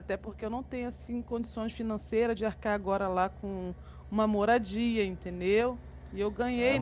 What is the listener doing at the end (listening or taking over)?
taking over